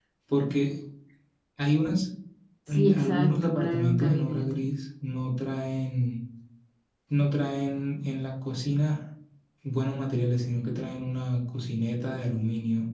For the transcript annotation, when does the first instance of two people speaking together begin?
3 s

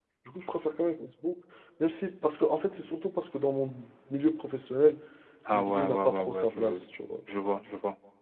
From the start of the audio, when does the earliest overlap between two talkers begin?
6 s

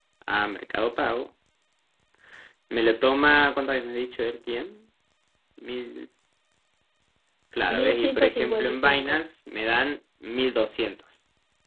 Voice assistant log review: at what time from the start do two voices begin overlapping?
8 s

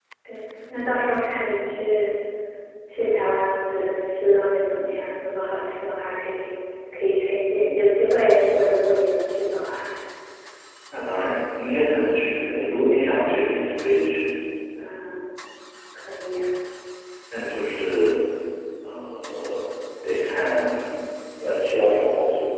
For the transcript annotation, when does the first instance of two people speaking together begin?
none

